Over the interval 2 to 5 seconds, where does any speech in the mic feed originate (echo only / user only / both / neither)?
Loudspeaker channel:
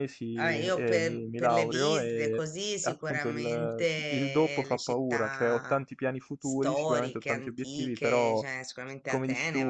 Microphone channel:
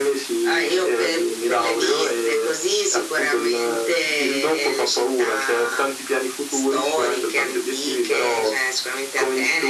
echo only